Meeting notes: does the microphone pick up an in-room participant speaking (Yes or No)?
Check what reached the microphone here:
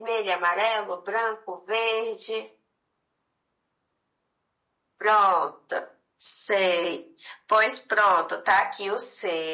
No